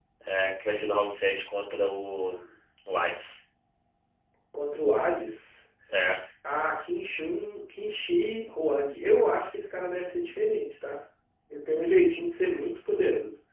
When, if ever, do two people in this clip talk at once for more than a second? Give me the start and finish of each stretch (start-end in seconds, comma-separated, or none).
none